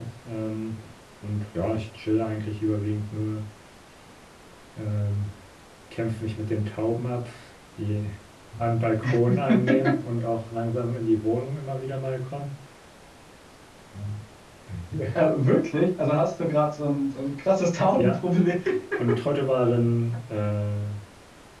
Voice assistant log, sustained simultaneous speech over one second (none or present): none